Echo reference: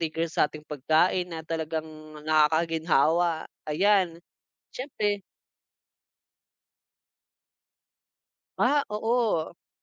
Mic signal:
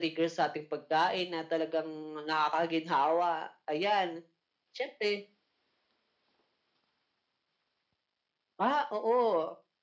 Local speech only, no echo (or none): none